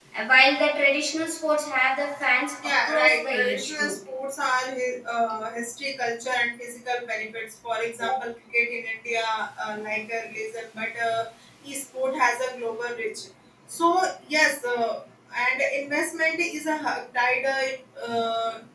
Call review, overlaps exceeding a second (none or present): present